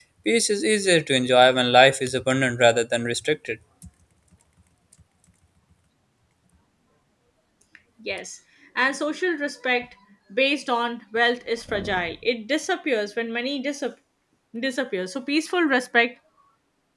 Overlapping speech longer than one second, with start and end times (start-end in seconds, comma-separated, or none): none